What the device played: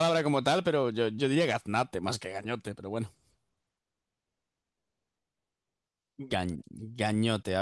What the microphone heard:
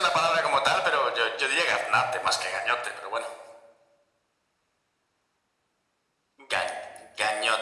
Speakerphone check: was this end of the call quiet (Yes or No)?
Yes